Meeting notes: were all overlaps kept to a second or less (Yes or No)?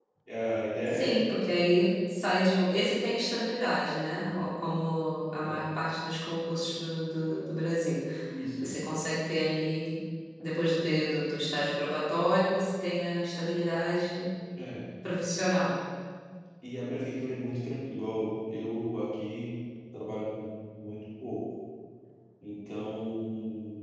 Yes